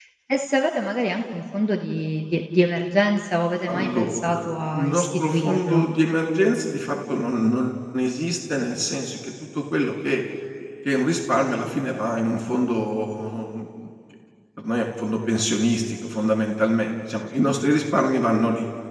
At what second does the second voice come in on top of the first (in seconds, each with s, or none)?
3.7 s